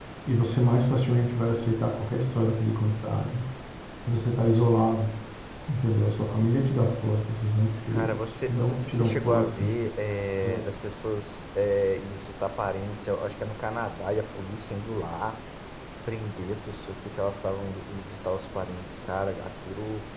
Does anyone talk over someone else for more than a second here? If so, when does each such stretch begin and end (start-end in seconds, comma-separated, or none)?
7.9-9.7